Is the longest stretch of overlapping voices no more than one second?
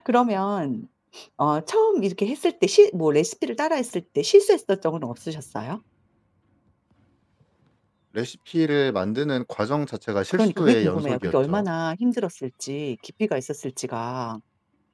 No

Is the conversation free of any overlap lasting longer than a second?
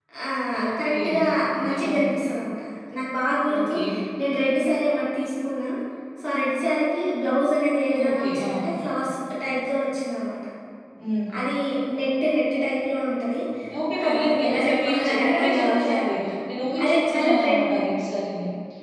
No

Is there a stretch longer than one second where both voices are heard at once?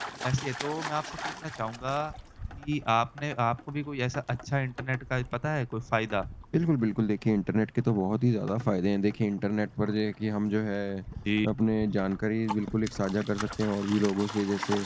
No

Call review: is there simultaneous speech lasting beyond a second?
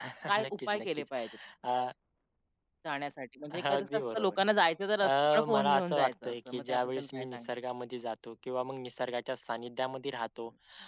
Yes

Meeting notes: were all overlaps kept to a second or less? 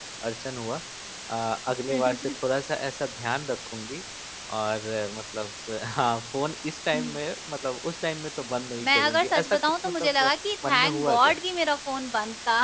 No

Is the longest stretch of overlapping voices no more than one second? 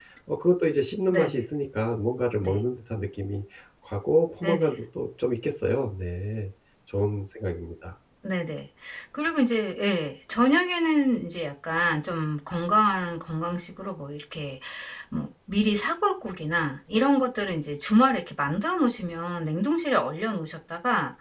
Yes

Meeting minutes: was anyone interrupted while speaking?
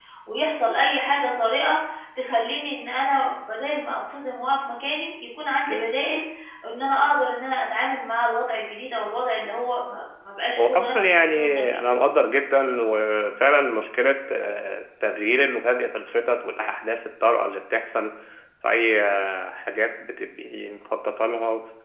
Yes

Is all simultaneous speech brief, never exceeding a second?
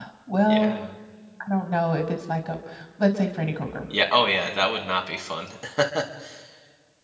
Yes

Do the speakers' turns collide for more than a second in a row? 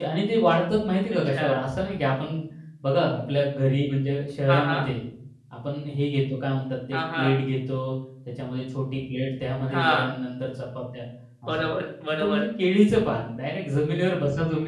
No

